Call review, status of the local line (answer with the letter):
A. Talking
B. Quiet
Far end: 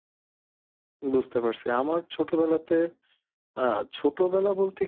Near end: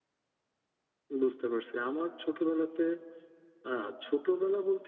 B